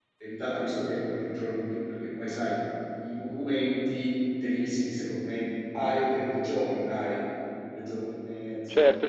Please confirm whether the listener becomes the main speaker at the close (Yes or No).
Yes